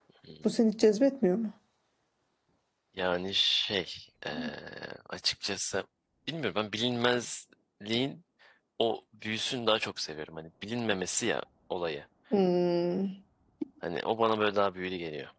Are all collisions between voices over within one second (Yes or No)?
Yes